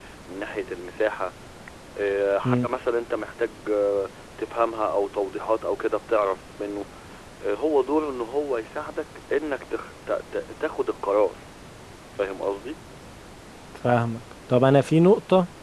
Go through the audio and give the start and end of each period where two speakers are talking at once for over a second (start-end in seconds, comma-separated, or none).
none